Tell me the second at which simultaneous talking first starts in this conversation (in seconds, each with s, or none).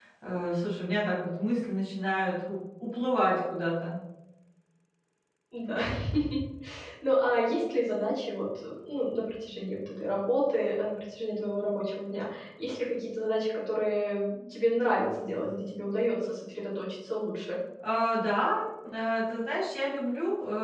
none